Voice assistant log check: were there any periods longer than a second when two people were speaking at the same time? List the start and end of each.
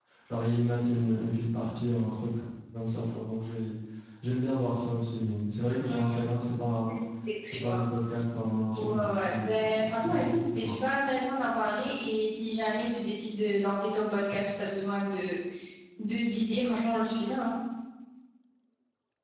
8.8-10.8

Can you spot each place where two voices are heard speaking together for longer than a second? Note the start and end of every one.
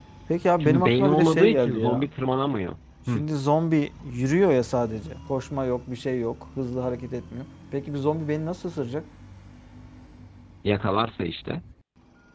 0.6-2.1

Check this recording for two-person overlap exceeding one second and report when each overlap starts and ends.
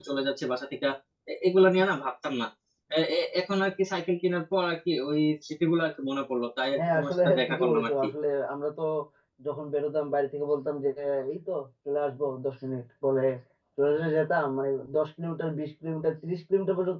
6.8-8.0

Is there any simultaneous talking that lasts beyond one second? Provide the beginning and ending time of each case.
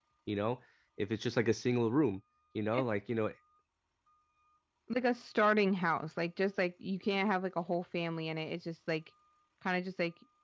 none

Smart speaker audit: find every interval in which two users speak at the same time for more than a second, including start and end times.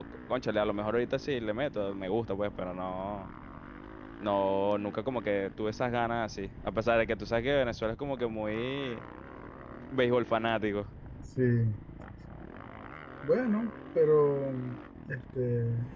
none

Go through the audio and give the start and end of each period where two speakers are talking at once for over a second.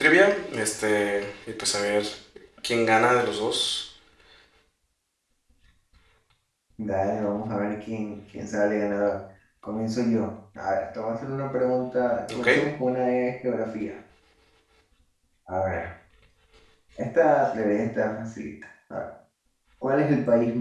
none

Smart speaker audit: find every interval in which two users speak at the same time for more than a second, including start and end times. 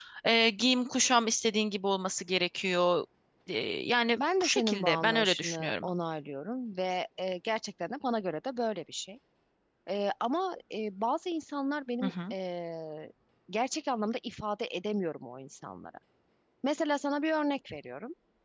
4.1-5.9

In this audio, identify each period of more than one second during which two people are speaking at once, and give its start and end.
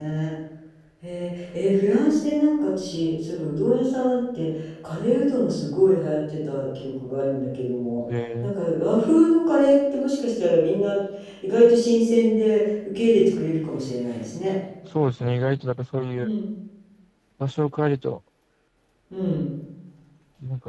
none

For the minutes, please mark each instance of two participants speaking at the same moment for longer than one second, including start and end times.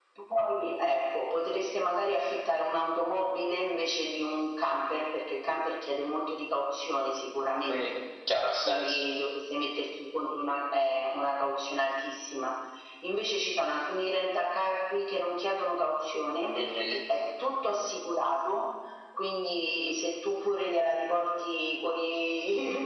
none

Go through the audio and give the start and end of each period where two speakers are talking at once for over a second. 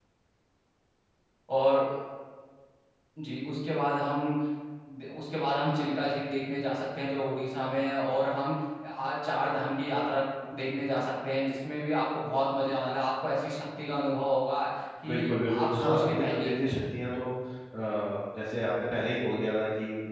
15.1-16.5

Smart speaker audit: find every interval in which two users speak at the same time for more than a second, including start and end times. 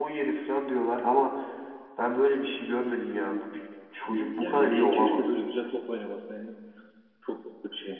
4.0-5.4

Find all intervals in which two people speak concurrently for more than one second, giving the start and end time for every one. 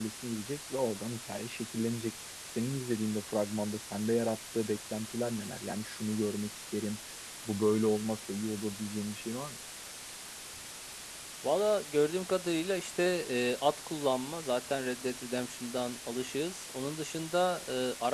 none

